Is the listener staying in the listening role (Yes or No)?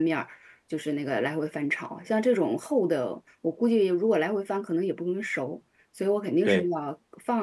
Yes